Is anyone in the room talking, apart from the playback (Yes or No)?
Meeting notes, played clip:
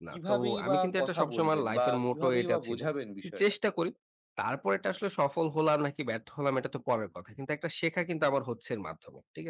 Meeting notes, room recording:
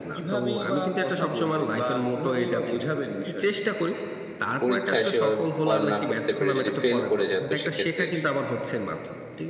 Yes